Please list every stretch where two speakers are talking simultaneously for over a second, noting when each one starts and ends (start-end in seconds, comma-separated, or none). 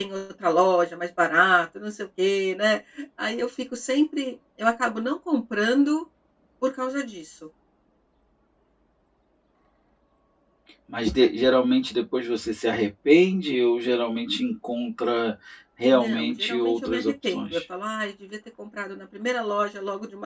15.9-17.6